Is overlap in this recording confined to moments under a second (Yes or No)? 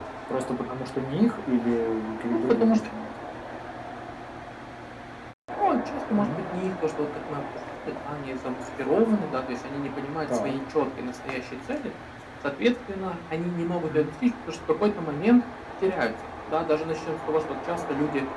Yes